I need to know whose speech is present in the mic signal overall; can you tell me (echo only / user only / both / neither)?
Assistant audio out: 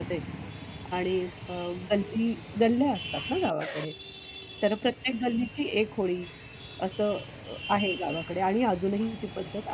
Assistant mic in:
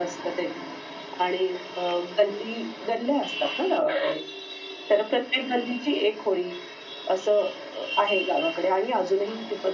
echo only